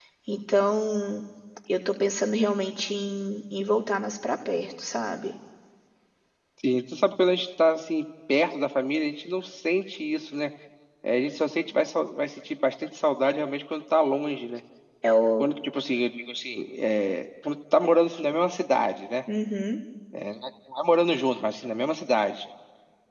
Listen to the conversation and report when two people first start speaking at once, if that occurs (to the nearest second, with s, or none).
none